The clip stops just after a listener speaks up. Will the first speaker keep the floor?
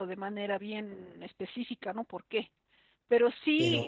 Yes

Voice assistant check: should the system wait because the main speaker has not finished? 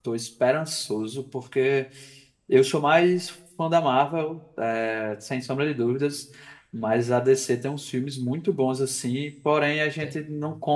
Yes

